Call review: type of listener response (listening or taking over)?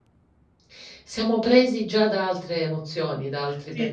taking over